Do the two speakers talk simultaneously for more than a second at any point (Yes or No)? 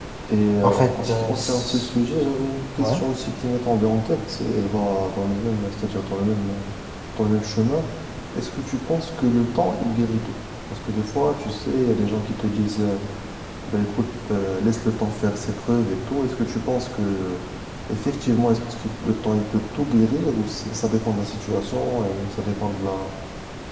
Yes